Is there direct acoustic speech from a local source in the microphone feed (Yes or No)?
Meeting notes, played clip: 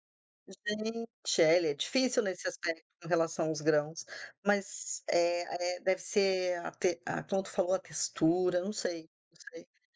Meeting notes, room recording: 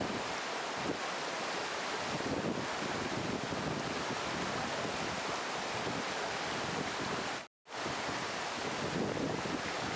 No